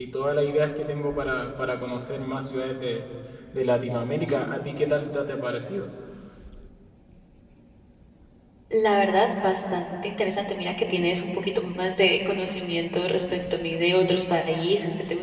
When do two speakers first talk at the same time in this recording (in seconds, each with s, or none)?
none